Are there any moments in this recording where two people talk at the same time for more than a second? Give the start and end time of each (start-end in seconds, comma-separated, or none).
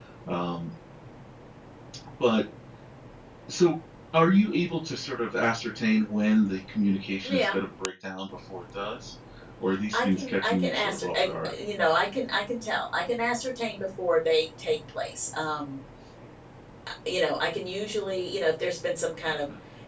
9.9-11.5